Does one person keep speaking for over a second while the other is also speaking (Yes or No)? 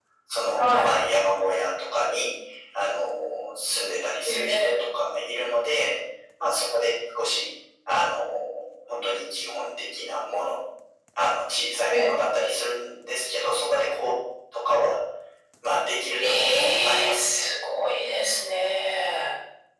Yes